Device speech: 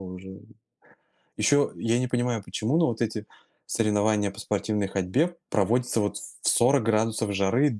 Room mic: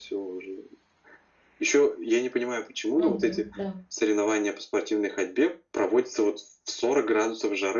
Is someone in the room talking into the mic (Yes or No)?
Yes